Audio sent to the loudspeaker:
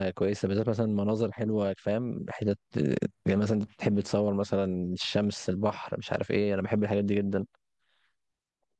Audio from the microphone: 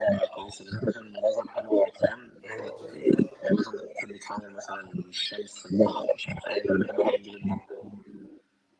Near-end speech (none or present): present